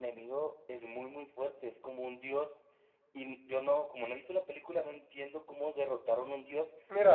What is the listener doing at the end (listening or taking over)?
listening